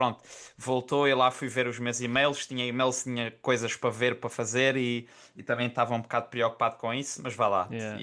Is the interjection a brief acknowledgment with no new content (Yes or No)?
Yes